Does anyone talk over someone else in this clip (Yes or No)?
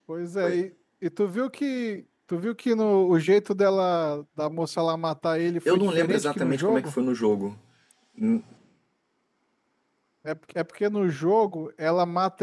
Yes